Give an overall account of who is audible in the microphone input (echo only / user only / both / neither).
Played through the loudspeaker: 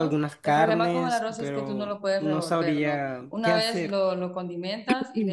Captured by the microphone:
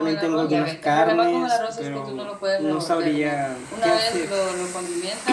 both